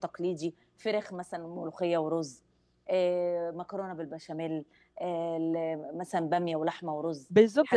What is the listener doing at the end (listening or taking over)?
taking over